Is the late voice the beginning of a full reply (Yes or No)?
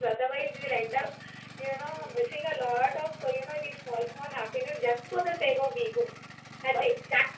No